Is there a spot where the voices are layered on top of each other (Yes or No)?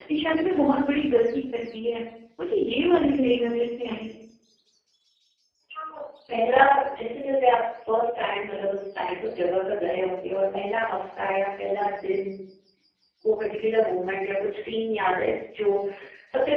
No